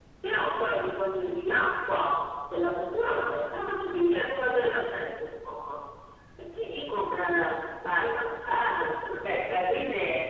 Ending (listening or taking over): taking over